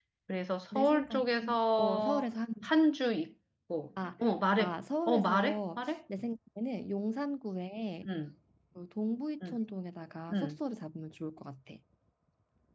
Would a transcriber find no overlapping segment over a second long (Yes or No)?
No